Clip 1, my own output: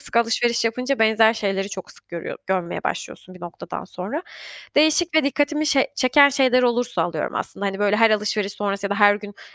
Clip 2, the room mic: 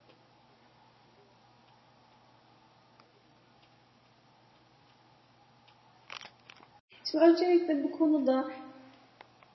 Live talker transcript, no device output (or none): Şimdi öncelikle bu konuda,